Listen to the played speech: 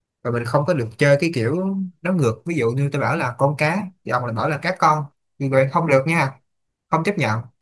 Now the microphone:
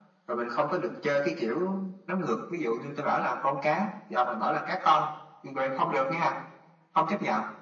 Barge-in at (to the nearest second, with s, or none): none